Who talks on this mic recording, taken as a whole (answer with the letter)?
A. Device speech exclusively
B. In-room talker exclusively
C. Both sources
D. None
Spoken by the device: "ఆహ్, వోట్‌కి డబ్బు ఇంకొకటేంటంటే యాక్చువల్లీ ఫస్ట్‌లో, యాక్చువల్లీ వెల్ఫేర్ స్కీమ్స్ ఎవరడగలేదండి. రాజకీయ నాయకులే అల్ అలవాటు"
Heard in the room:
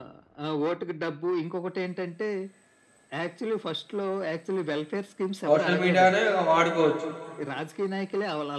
C